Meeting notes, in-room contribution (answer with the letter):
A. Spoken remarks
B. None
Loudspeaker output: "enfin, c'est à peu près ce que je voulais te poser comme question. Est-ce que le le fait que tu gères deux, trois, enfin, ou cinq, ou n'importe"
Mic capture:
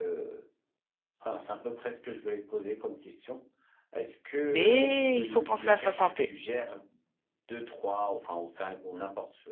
A